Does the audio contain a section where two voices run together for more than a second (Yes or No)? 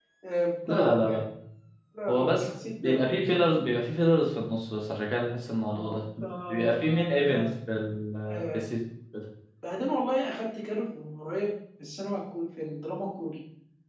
Yes